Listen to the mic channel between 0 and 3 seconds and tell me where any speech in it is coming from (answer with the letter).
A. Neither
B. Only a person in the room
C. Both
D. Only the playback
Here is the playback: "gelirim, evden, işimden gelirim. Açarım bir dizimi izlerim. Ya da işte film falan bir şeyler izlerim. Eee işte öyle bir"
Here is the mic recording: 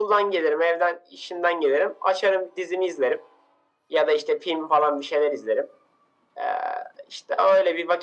D